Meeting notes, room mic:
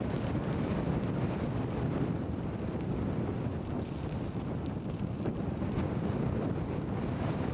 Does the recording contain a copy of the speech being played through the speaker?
No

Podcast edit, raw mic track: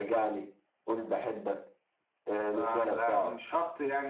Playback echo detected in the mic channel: Yes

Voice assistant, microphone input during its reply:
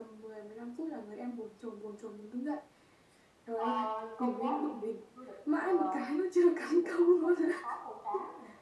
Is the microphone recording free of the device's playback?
No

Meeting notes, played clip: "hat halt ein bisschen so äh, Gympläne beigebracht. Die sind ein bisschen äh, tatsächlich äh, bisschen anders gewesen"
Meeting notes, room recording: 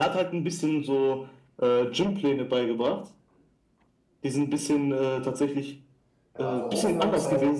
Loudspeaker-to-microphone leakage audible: Yes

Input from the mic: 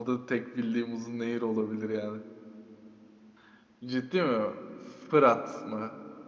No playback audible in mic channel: Yes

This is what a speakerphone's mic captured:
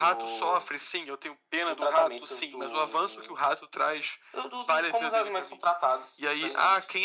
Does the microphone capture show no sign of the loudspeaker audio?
No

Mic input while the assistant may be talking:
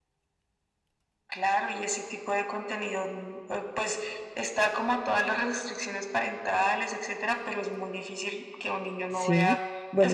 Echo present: Yes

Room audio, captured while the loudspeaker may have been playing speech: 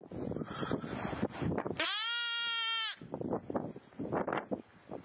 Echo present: No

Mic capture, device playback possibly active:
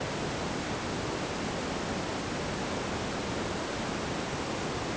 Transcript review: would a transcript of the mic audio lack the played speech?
Yes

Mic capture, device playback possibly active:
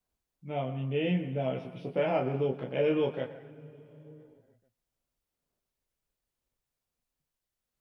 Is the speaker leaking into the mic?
No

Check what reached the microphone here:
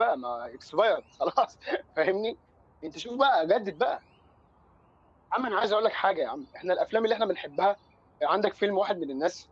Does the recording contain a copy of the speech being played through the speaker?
No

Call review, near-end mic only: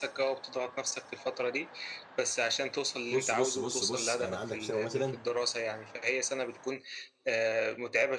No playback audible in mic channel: No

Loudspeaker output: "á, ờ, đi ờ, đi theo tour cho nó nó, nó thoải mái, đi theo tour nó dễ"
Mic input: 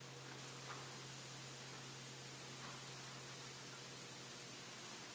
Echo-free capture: Yes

